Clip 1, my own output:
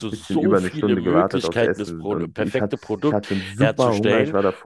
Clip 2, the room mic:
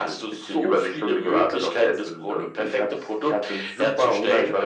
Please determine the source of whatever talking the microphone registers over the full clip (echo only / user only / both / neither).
echo only